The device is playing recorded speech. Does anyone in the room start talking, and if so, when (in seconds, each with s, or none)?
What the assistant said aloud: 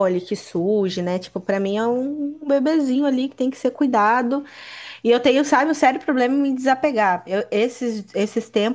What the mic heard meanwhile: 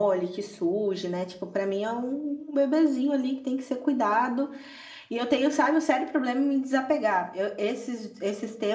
none